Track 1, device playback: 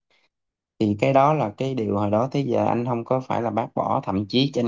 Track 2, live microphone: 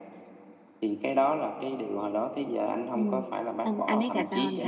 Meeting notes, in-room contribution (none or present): present